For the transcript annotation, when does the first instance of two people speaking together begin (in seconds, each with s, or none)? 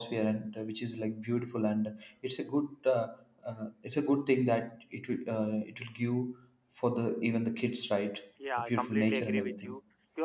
8.4 s